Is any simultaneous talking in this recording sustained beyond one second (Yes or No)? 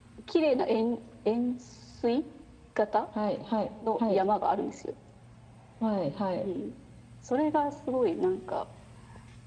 No